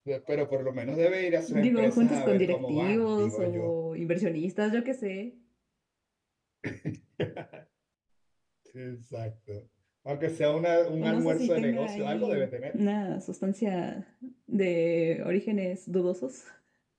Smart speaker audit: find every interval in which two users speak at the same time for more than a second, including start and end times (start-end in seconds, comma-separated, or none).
1.5-3.7, 11.0-12.4